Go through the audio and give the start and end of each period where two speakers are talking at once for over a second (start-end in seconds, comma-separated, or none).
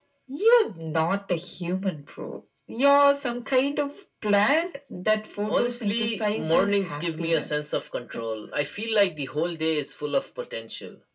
5.5-7.7